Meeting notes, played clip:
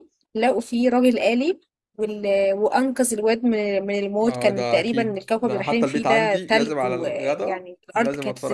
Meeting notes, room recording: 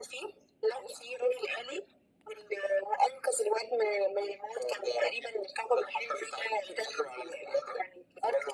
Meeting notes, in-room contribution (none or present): none